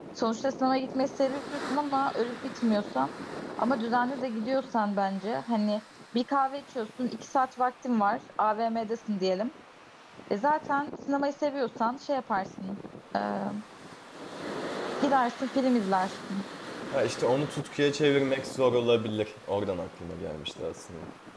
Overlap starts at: none

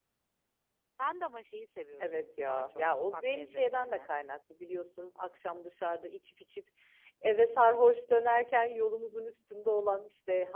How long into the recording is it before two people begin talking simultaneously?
2.0 s

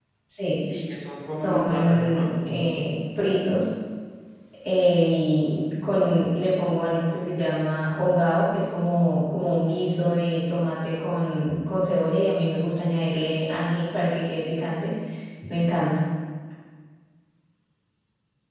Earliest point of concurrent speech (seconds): 1.3 s

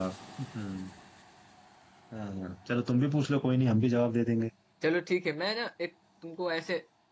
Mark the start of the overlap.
none

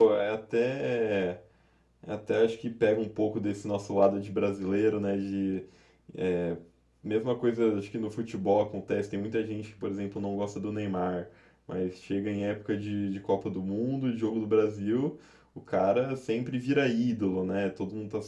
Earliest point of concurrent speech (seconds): none

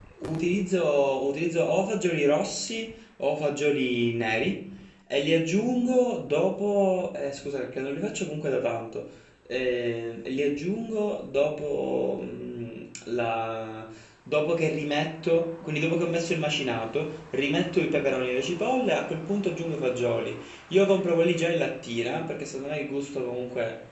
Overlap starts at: none

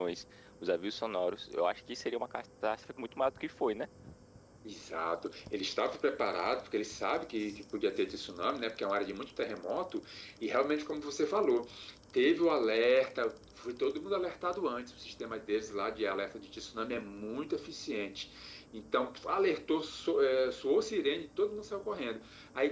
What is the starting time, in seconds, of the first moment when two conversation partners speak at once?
none

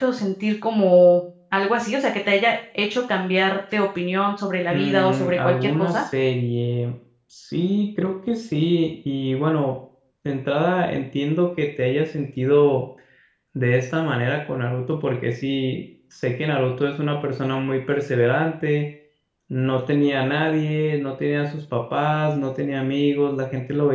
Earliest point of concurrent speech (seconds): 4.7 s

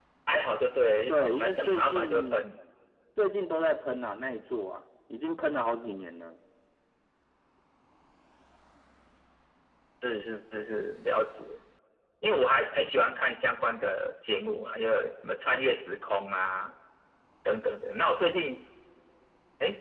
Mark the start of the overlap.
1.1 s

